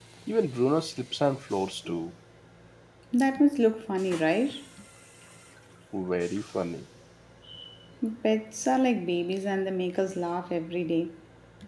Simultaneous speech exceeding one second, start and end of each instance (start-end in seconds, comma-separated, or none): none